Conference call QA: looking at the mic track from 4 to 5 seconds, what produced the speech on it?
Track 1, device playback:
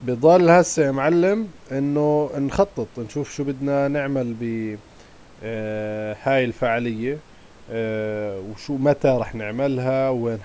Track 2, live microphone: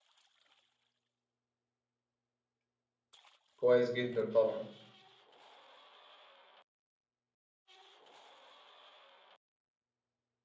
user only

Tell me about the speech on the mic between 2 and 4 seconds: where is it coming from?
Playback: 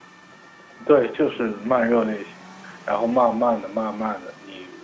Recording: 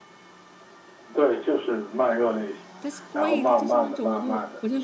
both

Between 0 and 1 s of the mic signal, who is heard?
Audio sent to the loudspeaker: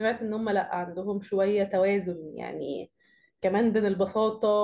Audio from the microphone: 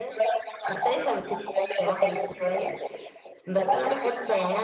both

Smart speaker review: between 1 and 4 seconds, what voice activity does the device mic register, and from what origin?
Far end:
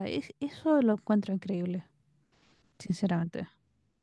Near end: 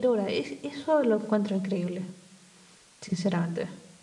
echo only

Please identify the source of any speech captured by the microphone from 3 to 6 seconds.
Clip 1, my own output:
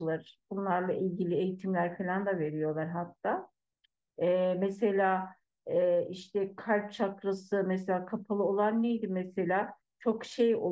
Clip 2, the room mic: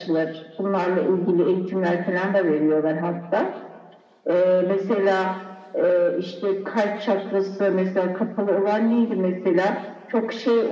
echo only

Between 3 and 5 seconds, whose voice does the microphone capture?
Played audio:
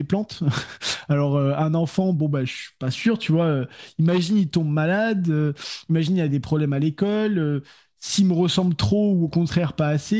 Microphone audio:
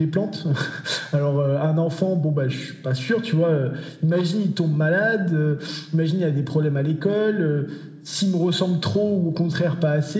echo only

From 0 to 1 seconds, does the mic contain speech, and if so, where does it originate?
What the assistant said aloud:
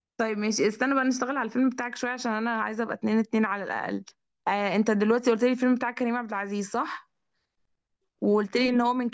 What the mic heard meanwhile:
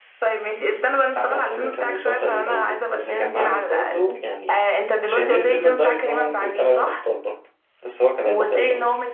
echo only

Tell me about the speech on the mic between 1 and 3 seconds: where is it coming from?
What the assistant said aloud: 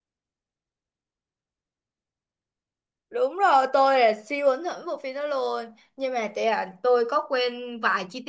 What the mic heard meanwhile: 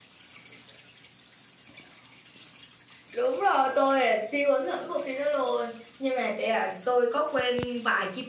neither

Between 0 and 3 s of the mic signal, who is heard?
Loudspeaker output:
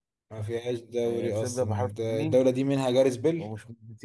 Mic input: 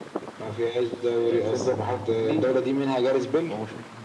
echo only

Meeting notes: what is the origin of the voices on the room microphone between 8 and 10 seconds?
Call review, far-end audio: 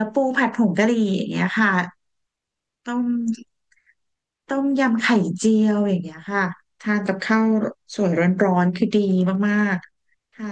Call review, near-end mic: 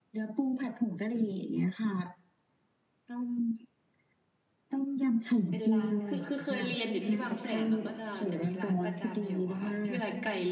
both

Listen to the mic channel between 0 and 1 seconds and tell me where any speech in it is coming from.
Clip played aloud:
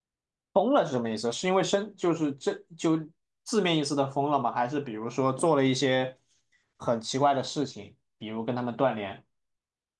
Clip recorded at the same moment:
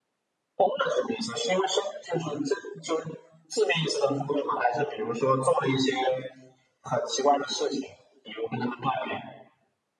echo only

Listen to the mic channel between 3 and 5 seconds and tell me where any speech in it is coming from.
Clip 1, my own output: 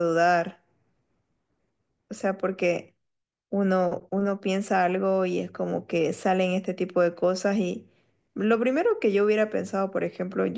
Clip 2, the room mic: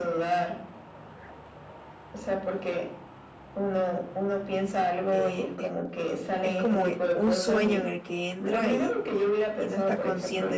echo only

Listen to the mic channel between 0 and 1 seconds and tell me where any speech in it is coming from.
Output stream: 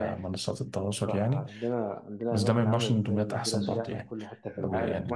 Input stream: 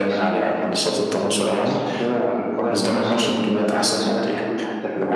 both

